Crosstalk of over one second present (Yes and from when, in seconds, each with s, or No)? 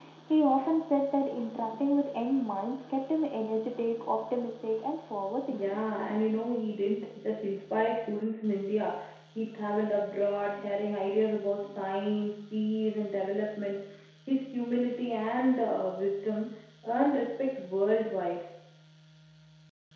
No